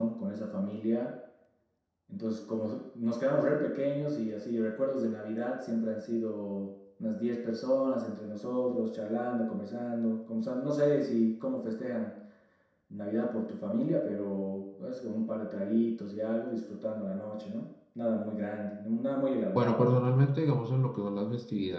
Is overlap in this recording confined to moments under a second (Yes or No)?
Yes